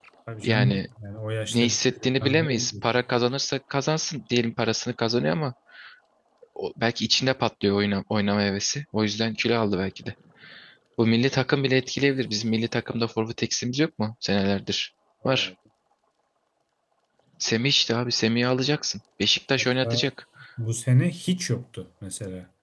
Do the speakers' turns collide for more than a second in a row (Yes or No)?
Yes